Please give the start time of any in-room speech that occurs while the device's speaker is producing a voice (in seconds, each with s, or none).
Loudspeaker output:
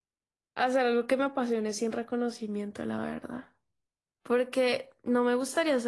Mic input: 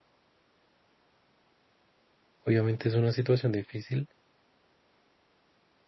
2.4 s